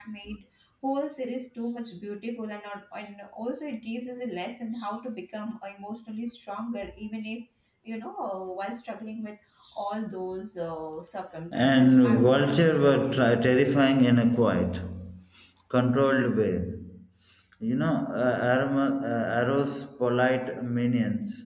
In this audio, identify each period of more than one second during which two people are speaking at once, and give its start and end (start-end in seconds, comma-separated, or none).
11.5-13.4